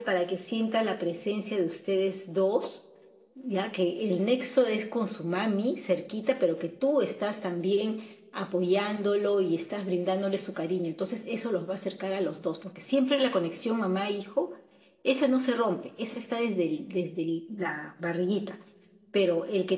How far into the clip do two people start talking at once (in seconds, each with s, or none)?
none